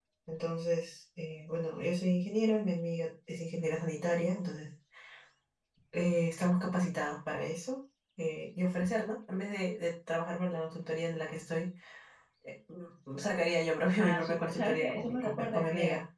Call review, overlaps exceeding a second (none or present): present